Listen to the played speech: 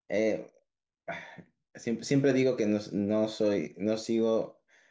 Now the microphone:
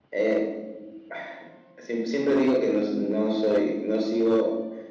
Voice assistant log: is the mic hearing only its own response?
Yes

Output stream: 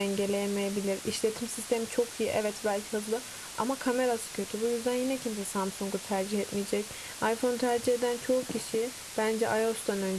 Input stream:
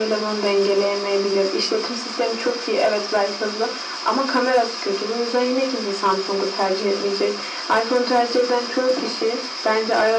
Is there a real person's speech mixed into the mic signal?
No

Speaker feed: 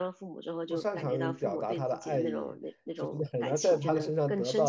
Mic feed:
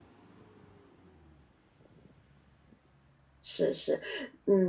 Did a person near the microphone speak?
Yes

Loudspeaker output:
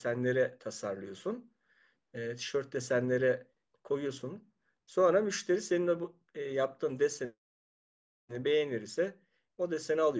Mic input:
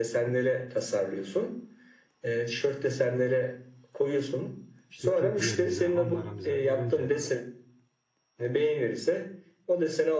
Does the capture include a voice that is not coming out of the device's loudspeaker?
Yes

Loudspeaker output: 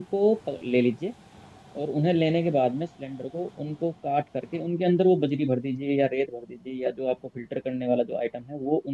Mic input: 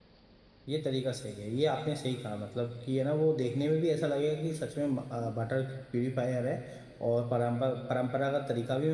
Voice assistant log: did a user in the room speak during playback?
Yes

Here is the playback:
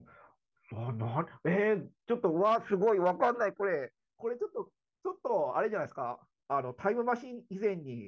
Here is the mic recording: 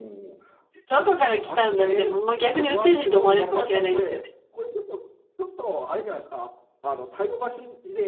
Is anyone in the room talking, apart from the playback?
Yes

